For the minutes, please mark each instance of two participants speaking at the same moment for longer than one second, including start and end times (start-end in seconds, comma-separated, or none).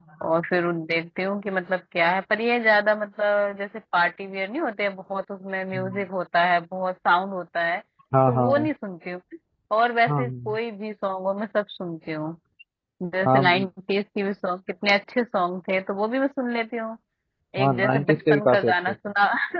17.6-18.9